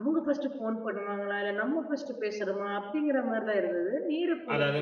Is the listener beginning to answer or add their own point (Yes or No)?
Yes